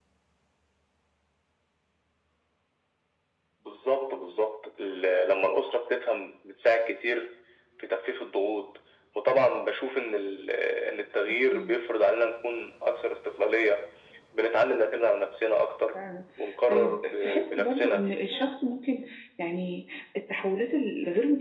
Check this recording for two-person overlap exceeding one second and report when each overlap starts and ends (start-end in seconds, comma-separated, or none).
16.7-18.0